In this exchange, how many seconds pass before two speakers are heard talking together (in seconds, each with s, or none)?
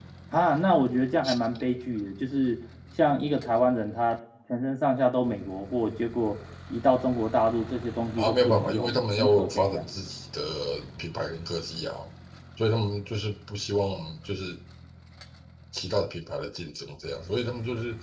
8.2 s